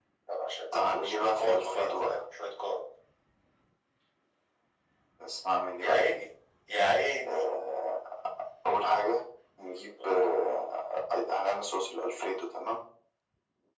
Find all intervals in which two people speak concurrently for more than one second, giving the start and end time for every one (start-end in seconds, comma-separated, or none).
0.7-2.2